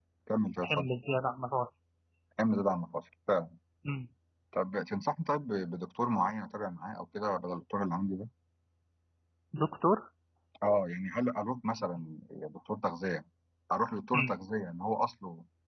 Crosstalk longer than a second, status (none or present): none